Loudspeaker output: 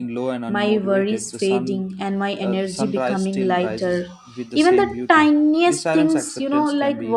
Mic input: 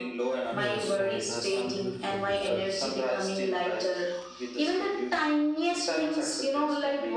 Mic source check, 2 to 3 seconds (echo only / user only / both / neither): both